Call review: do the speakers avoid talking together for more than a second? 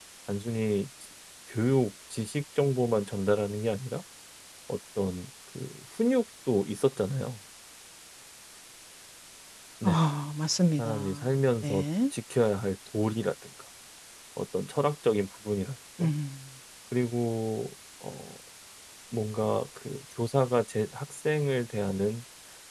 Yes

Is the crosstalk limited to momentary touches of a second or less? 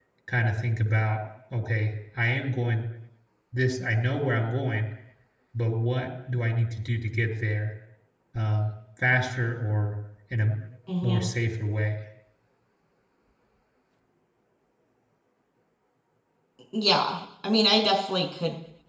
Yes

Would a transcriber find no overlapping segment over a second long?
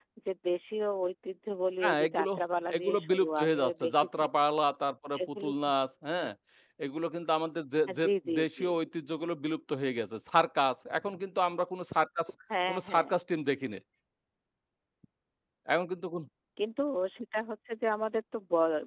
No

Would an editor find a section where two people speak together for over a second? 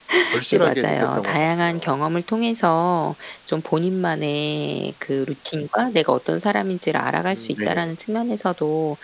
Yes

